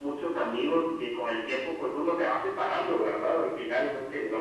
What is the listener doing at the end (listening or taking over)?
listening